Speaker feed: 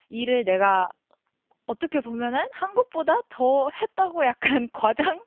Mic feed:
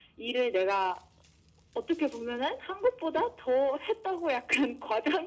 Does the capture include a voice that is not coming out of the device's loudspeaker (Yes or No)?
No